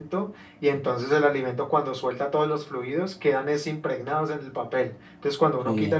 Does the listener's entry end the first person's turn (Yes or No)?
No